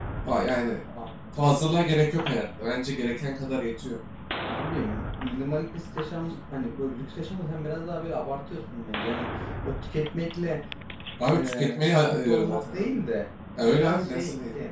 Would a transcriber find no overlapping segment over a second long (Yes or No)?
No